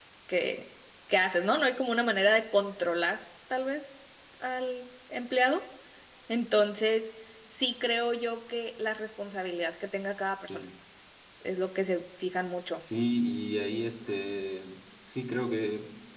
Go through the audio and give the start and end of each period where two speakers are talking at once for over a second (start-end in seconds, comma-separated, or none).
none